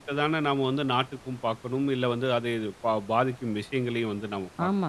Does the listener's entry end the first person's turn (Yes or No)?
Yes